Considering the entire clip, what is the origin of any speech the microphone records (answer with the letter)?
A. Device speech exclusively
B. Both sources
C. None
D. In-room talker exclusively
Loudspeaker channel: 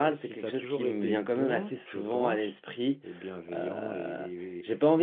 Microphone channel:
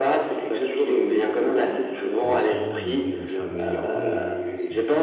B